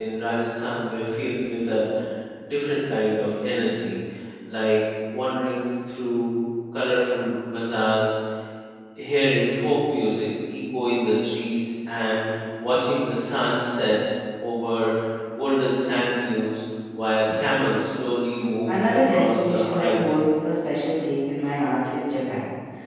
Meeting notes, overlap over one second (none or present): present